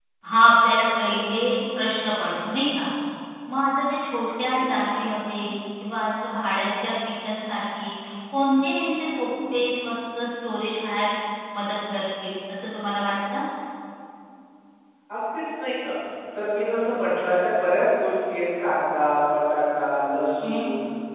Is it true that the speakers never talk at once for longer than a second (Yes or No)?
Yes